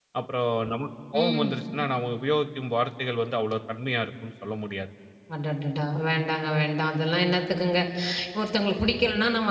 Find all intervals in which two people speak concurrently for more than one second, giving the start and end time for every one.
none

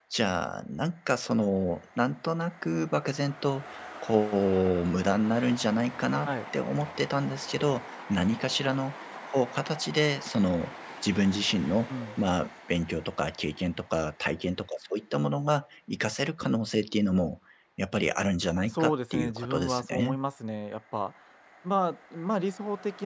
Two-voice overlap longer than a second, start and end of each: 18.7-20.2

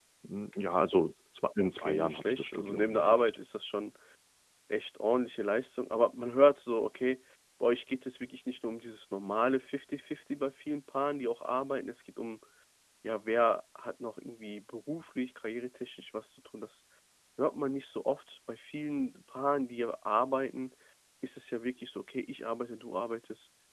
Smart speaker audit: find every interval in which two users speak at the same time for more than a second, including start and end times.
1.6-3.4

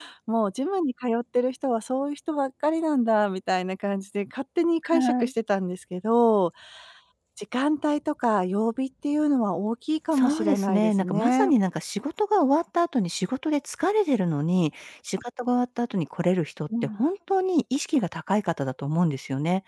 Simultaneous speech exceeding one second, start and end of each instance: 10.1-11.5

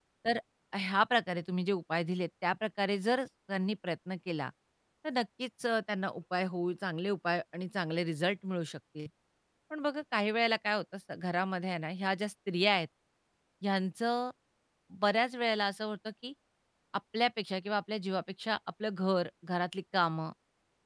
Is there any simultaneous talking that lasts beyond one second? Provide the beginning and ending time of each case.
none

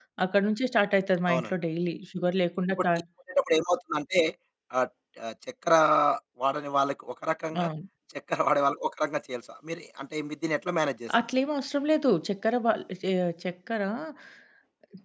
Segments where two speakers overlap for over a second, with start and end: none

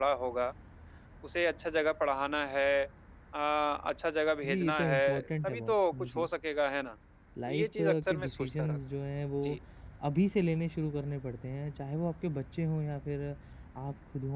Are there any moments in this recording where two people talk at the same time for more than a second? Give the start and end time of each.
4.5-6.3, 7.5-8.8

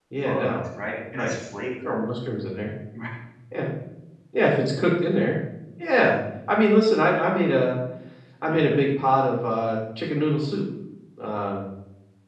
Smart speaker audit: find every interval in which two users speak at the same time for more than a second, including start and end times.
none

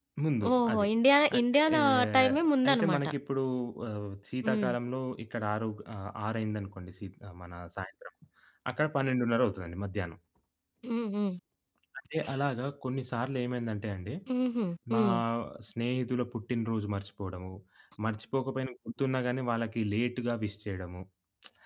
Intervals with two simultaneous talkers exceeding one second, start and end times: 1.4-3.0

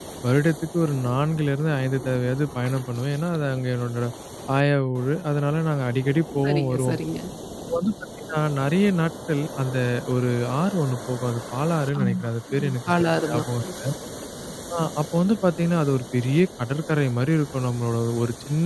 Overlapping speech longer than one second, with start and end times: 12.0-13.4

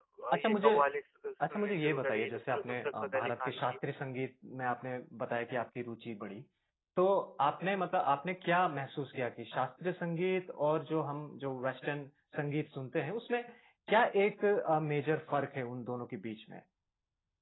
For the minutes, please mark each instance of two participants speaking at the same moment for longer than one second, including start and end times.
1.5-3.8

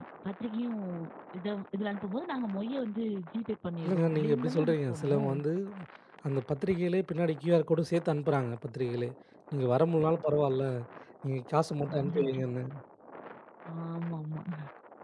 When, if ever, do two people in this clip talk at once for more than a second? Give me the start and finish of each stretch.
3.8-5.3

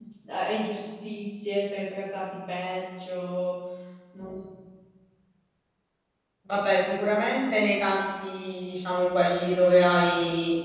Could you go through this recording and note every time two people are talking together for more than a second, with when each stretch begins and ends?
none

